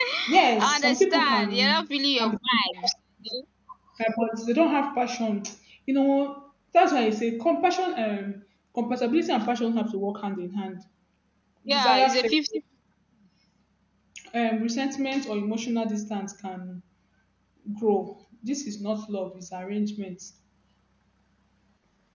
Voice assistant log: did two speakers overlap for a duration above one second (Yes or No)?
Yes